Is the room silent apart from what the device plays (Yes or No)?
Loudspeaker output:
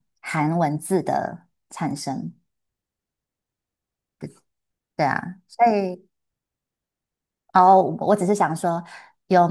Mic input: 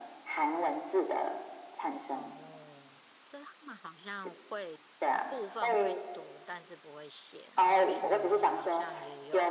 No